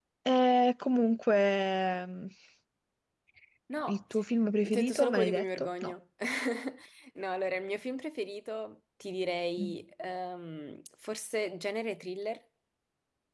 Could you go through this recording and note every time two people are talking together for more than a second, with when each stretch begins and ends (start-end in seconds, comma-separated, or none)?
4.6-5.9